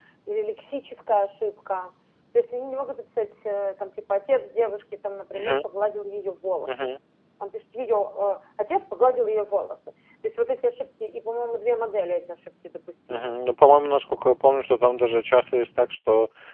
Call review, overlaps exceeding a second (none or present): none